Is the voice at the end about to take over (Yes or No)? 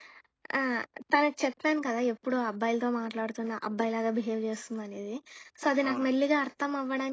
No